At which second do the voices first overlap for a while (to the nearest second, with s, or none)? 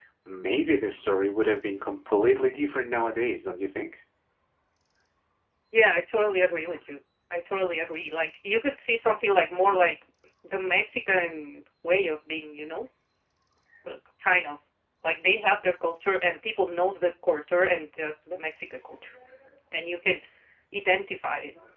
none